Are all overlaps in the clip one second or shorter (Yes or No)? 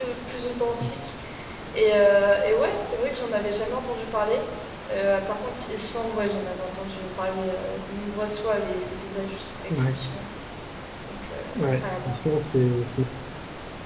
Yes